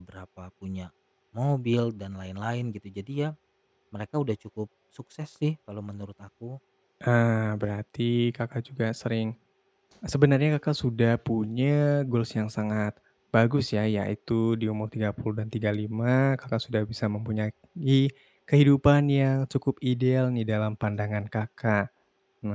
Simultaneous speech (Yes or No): No